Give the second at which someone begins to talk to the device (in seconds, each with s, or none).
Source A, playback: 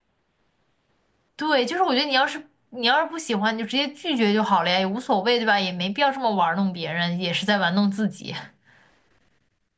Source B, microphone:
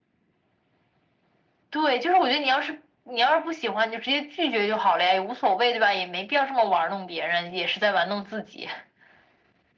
none